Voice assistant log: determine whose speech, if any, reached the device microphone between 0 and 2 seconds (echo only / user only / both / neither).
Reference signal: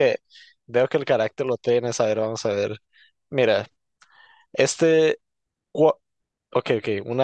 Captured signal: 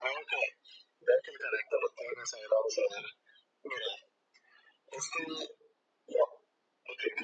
echo only